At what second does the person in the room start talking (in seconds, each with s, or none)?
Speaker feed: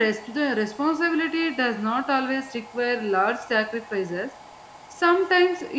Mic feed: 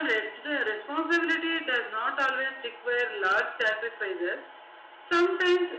none